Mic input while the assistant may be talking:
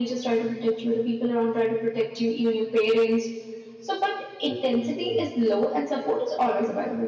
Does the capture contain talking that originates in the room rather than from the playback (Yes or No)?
Yes